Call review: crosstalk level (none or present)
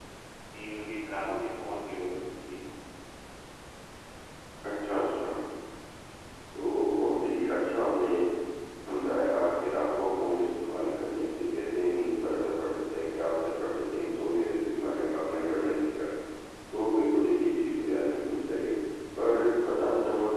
none